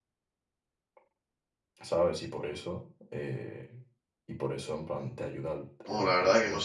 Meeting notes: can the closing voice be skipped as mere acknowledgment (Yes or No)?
No